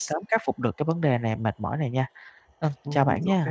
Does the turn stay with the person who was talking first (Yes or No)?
No